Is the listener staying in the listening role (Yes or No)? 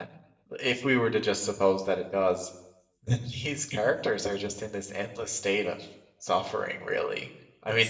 Yes